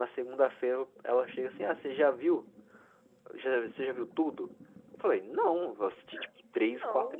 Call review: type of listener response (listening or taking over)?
listening